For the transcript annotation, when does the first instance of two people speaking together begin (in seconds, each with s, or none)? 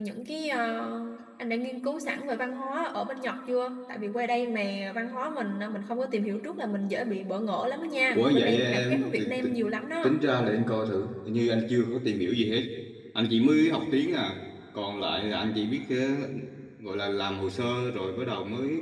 8.1 s